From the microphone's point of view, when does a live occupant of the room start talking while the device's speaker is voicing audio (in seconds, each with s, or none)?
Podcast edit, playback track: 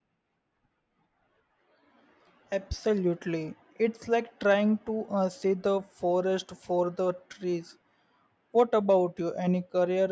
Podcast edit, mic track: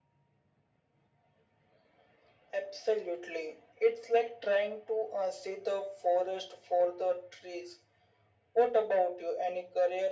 none